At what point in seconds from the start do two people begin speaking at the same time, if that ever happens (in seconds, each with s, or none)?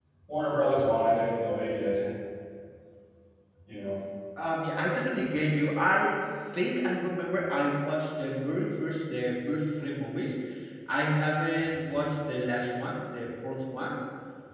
none